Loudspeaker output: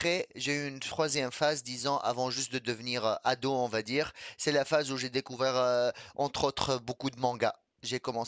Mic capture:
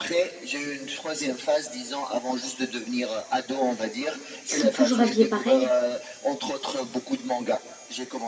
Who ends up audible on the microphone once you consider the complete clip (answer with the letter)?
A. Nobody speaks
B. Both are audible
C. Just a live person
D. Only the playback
B